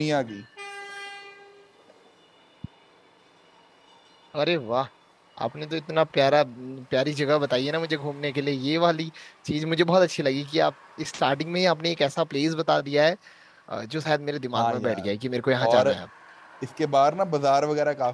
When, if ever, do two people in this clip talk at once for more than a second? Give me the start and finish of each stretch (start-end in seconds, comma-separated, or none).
none